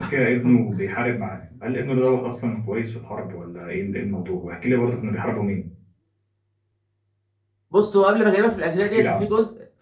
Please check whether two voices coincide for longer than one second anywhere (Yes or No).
No